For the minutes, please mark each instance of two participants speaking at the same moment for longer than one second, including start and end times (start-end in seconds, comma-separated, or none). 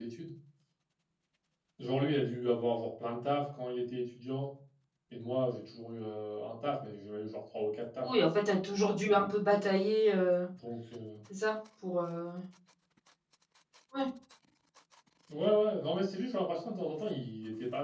none